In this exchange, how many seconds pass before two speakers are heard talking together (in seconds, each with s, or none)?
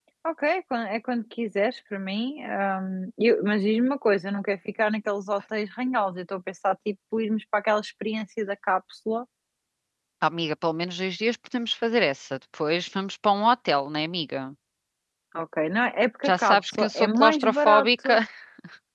16.2 s